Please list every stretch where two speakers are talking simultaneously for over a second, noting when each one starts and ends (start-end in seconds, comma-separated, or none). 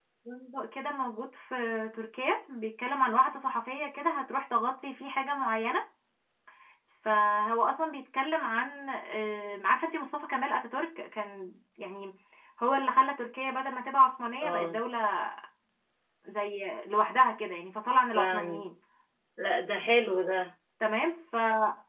none